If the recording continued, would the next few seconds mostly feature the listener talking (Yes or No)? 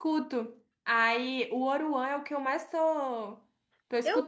Yes